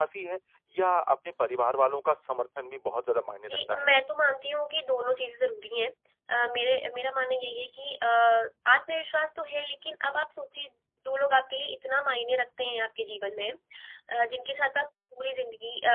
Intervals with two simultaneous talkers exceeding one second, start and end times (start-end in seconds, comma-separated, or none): none